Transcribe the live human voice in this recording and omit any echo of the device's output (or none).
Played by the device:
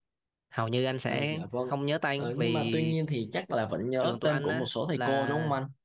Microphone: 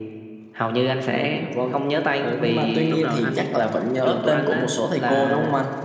Đúng rồi, anh